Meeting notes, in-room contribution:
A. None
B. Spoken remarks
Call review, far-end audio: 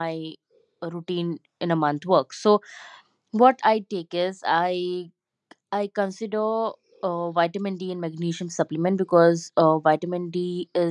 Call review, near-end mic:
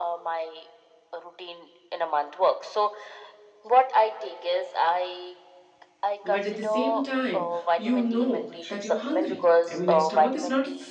B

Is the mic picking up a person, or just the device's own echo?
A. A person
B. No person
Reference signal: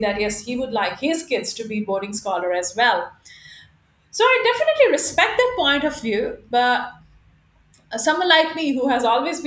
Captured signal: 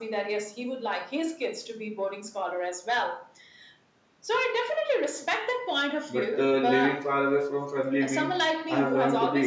A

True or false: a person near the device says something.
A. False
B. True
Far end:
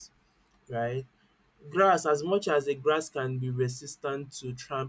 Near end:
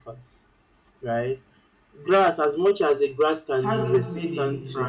B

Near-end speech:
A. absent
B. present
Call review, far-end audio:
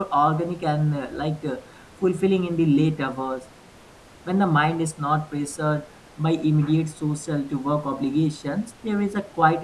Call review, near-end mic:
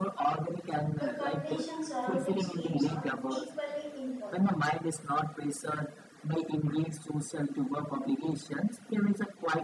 B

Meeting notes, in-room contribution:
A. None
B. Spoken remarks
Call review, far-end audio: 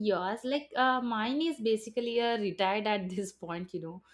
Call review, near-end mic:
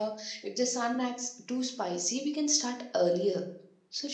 B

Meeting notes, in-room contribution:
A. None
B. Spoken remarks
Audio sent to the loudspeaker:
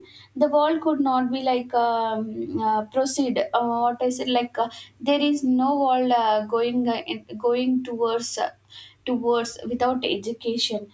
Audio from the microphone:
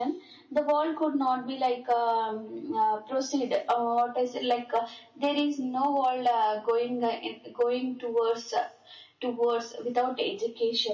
A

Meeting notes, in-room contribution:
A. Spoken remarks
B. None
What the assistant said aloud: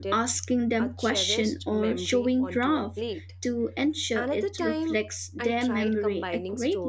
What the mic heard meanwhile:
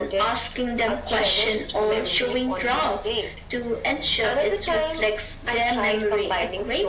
B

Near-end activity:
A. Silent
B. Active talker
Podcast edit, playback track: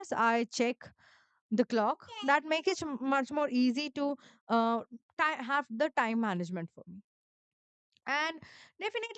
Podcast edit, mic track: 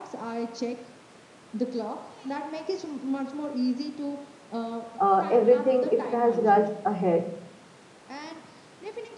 B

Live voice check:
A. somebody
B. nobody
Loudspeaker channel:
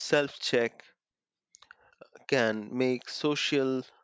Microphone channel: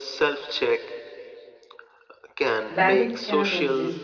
A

